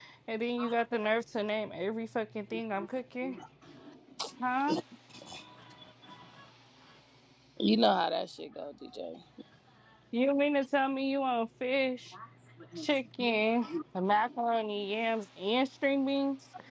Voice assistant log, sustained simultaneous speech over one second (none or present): none